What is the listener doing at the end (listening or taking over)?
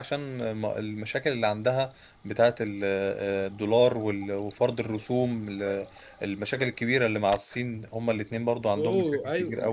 taking over